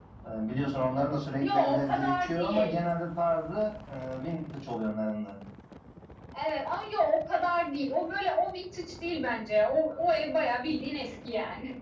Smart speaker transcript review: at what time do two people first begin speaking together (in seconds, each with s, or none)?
1.4 s